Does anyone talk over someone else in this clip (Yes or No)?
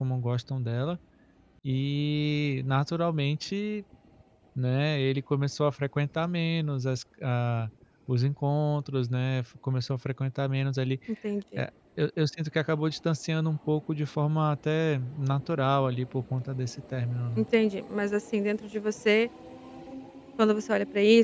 No